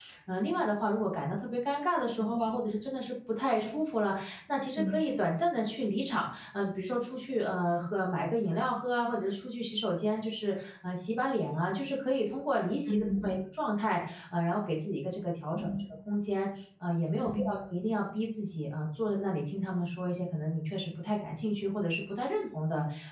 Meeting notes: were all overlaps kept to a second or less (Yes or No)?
Yes